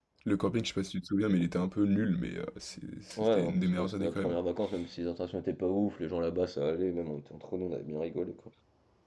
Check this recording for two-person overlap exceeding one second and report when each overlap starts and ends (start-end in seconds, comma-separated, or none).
3.2-4.4